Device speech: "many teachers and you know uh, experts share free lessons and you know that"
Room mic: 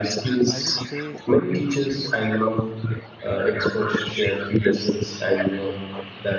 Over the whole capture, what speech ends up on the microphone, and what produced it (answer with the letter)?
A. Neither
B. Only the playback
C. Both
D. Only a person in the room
C